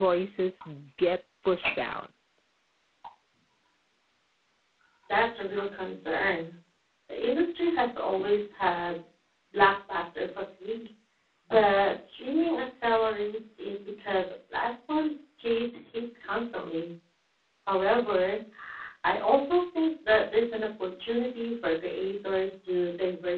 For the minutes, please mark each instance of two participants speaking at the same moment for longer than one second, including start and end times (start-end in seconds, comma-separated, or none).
none